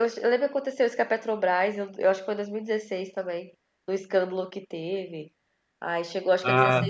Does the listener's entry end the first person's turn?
No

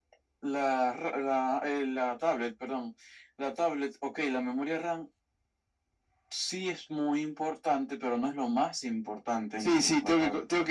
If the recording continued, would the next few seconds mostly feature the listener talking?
Yes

